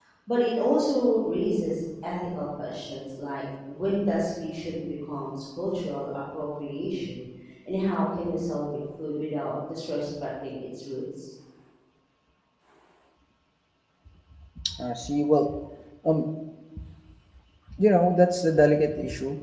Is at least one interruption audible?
No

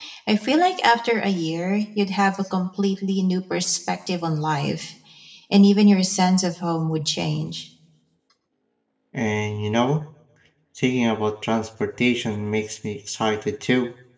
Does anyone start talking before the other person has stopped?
No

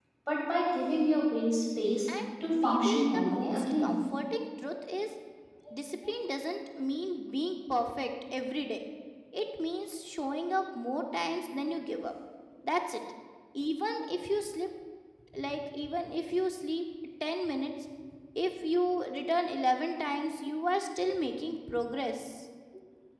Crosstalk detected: Yes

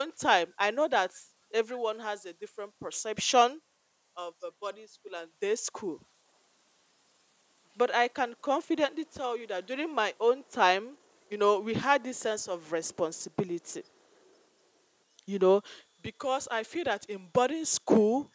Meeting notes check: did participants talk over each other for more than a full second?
No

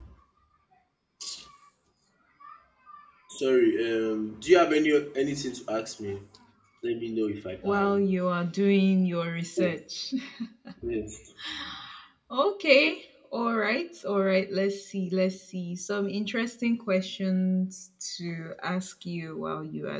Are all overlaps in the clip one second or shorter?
Yes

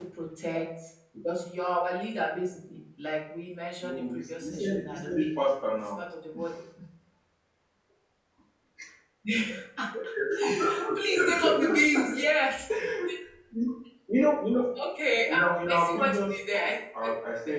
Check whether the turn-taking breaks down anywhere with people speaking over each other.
Yes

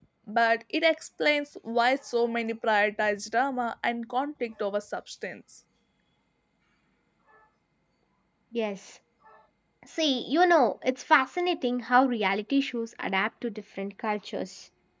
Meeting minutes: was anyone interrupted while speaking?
No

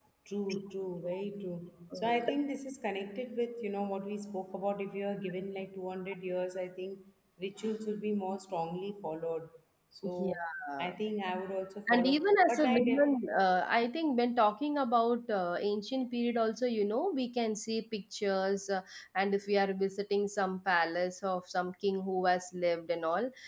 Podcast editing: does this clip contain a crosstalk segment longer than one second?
Yes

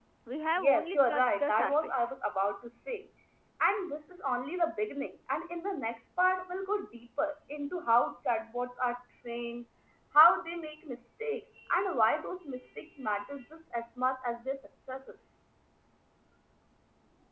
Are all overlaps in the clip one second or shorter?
No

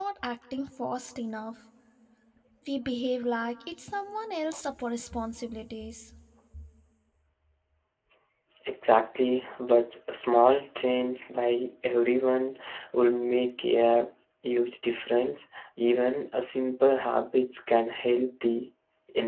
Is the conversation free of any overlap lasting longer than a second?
Yes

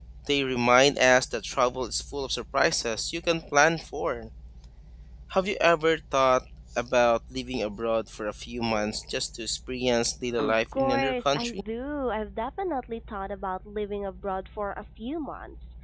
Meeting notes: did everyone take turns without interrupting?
No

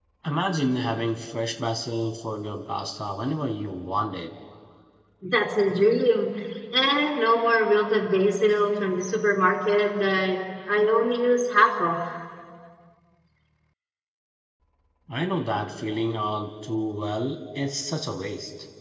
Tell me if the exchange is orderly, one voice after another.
Yes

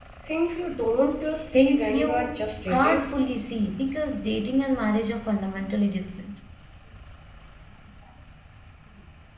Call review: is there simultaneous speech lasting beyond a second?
Yes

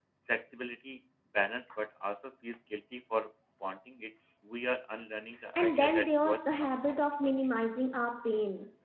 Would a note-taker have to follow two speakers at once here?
Yes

